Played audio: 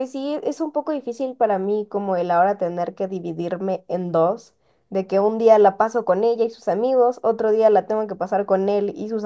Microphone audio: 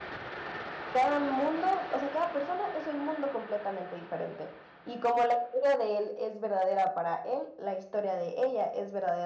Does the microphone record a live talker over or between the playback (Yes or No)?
Yes